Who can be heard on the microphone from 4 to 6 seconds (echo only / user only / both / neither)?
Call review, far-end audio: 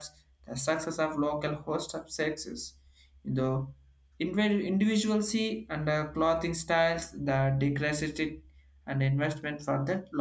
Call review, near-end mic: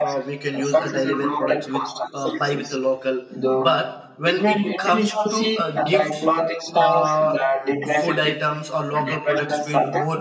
both